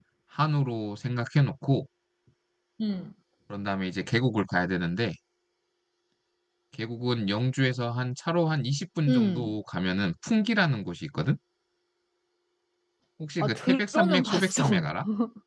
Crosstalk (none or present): present